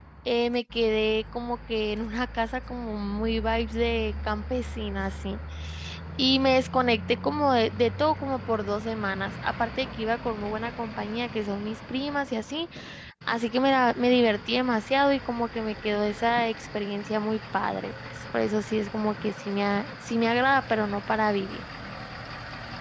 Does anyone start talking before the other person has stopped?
No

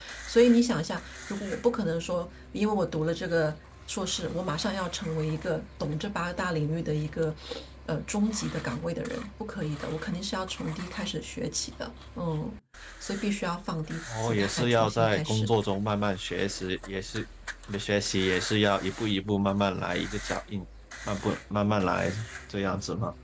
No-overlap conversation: No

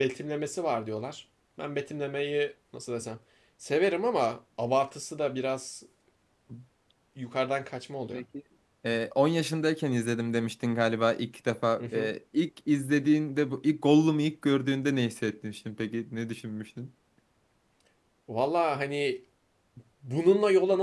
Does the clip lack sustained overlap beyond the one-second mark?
Yes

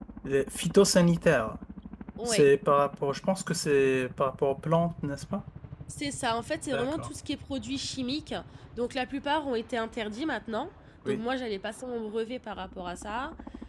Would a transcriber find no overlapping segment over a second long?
Yes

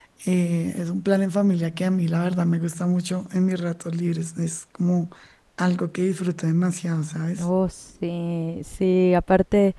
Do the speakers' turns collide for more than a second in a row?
No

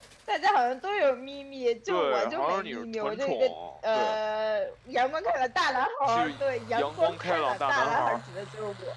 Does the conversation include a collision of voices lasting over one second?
Yes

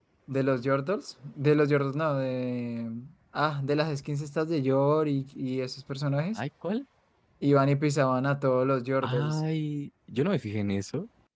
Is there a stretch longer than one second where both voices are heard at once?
No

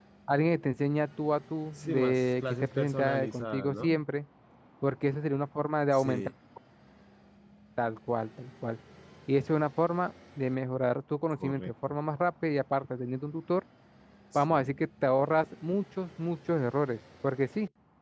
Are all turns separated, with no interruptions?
No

